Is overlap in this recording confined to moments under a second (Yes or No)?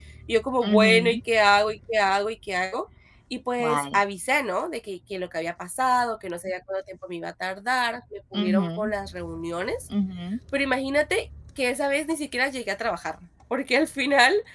Yes